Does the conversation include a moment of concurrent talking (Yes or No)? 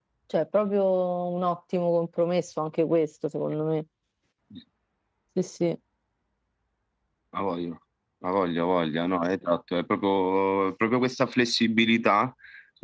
No